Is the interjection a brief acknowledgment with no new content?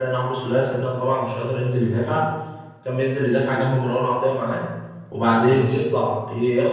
Yes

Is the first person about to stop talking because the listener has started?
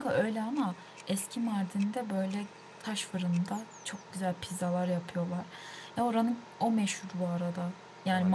No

